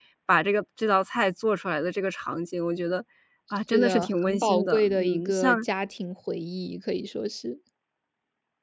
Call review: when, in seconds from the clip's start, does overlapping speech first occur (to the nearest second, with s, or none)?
4 s